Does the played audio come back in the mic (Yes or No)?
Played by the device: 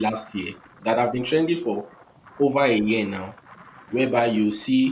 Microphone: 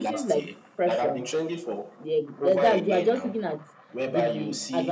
Yes